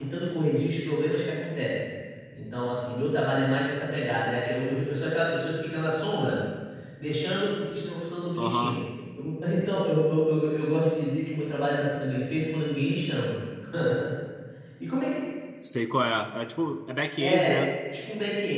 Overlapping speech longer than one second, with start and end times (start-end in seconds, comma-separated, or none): none